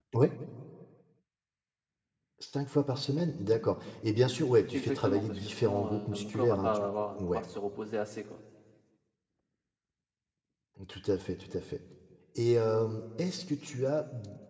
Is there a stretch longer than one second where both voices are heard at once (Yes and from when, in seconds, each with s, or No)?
Yes, from 4.7 s